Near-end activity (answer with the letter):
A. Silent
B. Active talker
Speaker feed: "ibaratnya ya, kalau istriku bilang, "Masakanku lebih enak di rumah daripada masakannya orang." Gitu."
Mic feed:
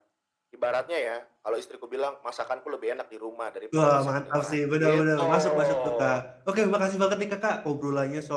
B